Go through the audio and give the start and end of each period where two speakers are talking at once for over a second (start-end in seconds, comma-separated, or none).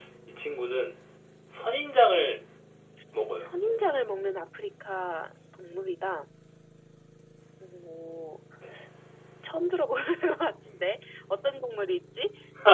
none